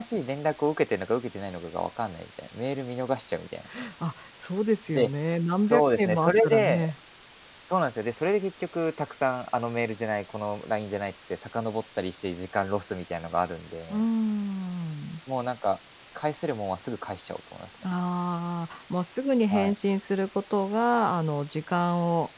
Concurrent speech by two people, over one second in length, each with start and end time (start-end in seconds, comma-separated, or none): 5.7-6.9